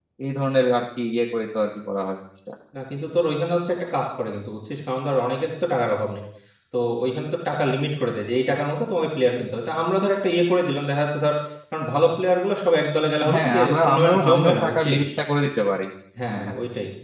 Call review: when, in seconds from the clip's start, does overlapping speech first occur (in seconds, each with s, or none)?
13.3 s